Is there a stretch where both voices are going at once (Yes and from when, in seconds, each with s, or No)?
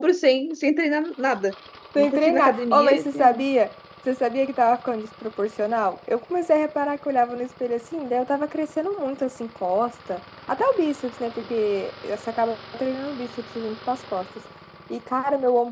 Yes, from 2.0 s